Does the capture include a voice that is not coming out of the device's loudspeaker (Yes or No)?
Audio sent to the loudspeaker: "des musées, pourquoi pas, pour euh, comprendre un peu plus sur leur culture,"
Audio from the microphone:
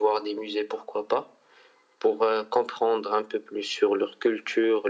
No